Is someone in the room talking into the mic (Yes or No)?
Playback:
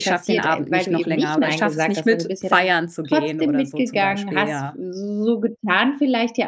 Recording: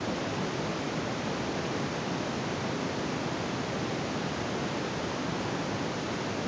No